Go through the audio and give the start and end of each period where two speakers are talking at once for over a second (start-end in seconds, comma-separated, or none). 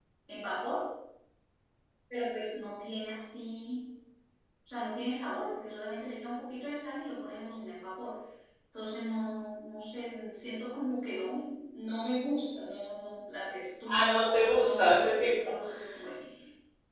13.9-15.5